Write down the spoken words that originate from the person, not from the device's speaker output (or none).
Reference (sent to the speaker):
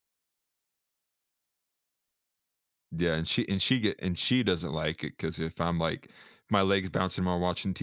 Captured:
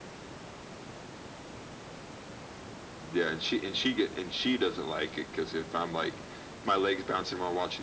none